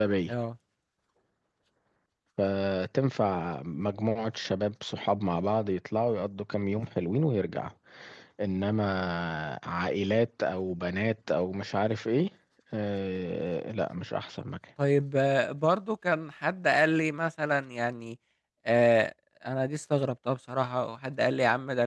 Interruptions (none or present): none